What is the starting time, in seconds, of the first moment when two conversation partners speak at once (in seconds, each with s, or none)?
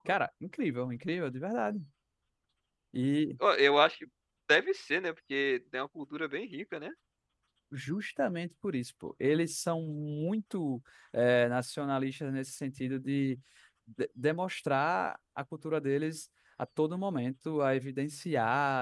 none